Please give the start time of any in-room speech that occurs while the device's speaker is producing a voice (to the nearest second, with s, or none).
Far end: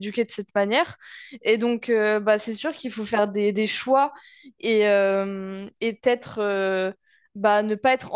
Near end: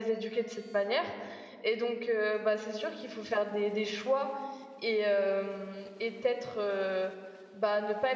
none